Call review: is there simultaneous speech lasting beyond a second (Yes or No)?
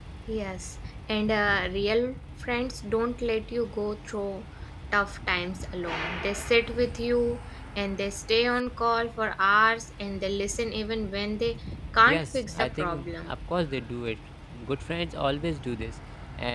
Yes